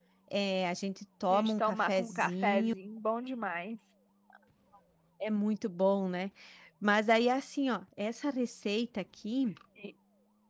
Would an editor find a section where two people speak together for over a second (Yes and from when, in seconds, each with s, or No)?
Yes, from 1.3 s